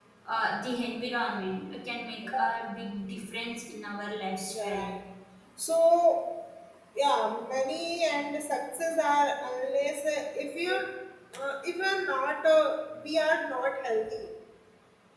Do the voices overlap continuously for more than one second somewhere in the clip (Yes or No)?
No